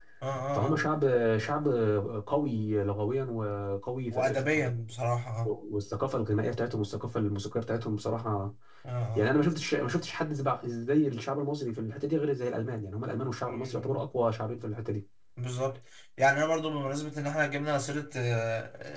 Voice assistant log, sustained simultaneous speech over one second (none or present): none